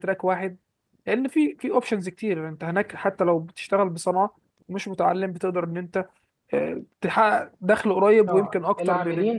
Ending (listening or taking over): taking over